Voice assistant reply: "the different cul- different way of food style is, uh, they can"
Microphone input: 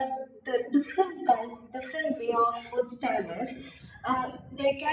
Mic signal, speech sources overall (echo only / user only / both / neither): echo only